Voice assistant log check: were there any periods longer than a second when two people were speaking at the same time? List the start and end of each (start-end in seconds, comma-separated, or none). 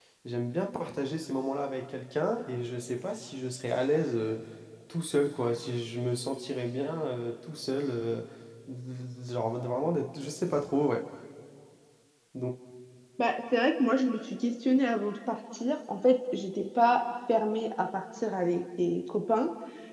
none